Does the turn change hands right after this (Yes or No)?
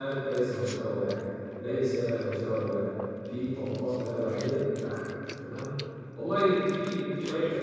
No